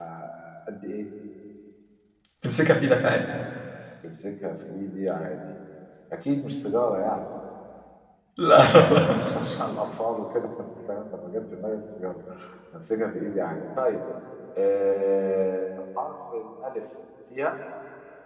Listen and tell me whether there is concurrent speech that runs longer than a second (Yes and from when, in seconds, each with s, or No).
No